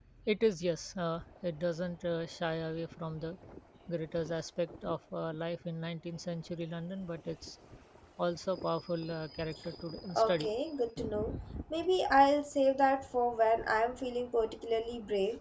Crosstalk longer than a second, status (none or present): none